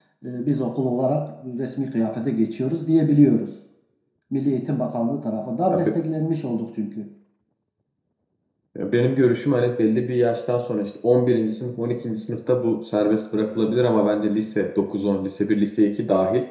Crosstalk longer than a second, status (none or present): none